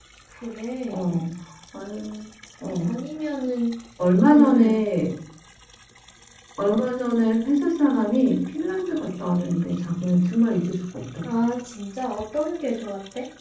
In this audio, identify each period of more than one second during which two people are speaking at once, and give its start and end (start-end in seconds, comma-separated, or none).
none